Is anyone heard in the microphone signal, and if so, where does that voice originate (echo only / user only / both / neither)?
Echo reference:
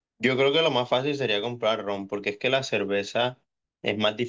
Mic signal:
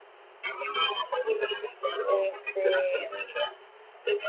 both